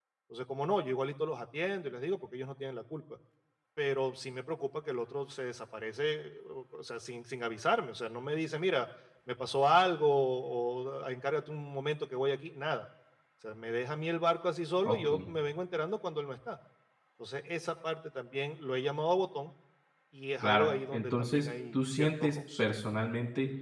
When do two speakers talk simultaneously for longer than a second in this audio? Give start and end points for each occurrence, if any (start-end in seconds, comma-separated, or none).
20.4-22.6